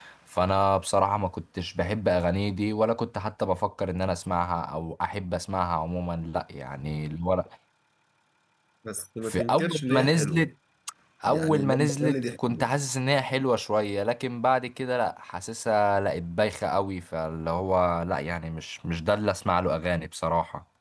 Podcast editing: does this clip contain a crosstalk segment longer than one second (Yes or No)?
Yes